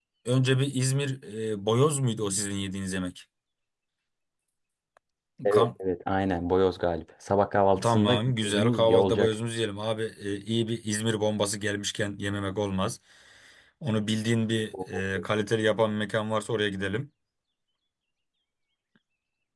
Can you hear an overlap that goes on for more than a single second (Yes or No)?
Yes